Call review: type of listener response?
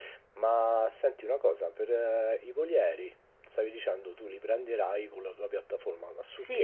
taking over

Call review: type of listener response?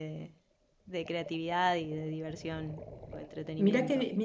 taking over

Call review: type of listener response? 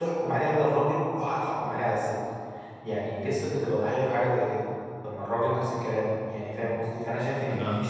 listening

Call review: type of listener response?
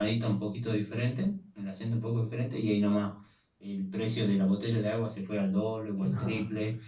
listening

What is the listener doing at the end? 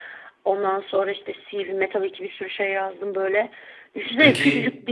listening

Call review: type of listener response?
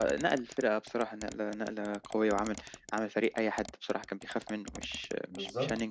taking over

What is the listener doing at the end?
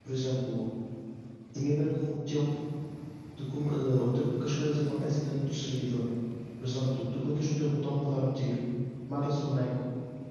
listening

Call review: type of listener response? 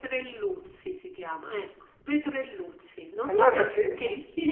listening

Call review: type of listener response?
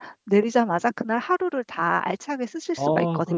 taking over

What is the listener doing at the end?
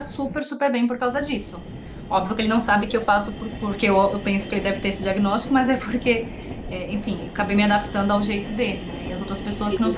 listening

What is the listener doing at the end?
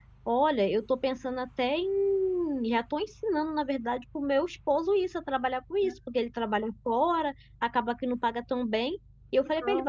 listening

